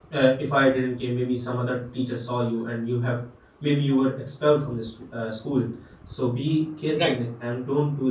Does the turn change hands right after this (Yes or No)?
No